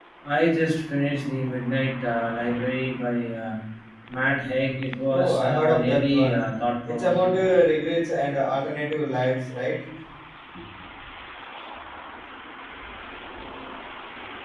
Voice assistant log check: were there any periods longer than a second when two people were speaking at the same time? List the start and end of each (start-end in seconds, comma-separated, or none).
5.1-6.4